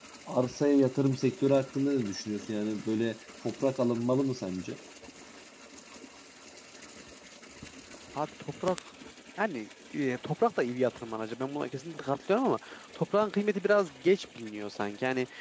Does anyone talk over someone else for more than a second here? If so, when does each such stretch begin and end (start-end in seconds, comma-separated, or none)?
none